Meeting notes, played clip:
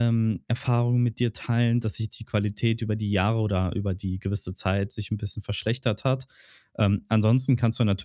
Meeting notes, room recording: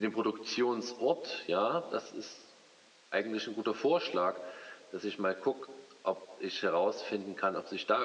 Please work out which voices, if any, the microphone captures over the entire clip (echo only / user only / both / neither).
user only